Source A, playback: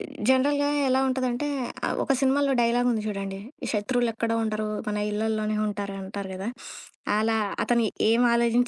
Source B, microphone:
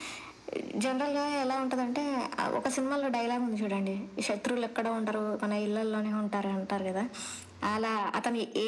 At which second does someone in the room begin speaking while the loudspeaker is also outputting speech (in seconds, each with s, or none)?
none